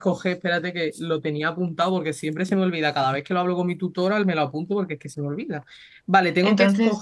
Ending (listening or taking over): listening